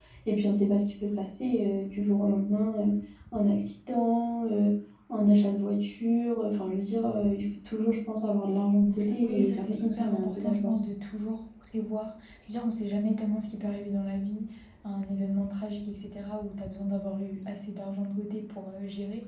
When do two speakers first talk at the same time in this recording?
9 s

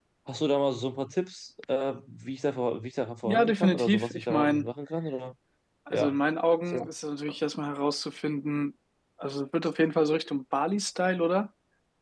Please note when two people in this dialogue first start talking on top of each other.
3 s

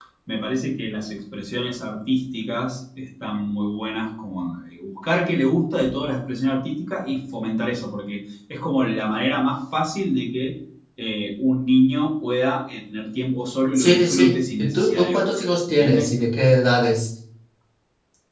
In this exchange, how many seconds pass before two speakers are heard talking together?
14 s

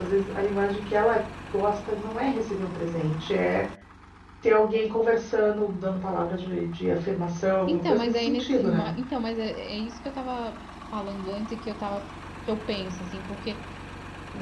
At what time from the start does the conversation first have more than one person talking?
8 s

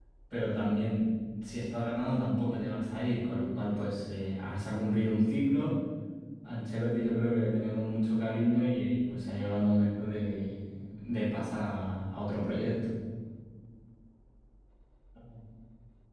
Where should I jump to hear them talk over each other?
none

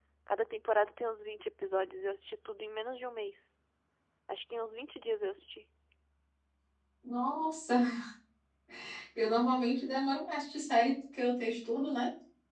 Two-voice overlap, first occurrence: none

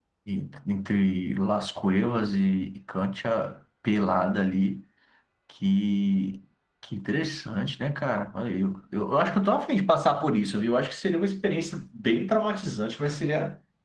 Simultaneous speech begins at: none

